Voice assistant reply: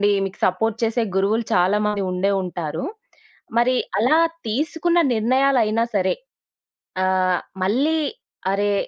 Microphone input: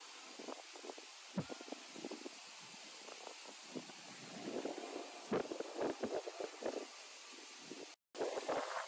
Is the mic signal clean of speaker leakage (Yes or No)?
Yes